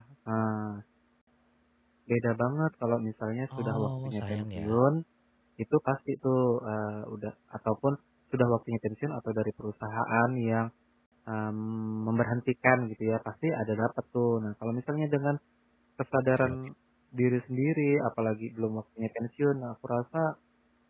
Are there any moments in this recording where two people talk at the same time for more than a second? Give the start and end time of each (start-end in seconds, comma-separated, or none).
3.5-4.8